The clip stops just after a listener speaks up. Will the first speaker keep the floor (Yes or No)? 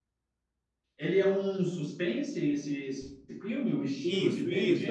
No